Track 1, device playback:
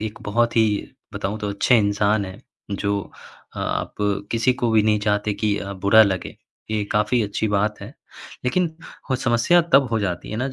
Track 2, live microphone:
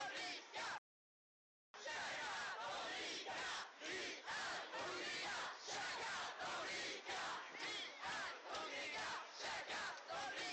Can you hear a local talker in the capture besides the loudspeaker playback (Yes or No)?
No